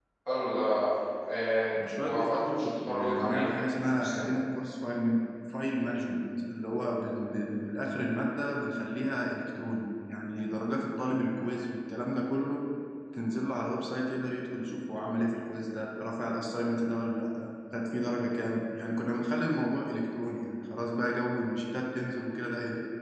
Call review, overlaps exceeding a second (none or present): present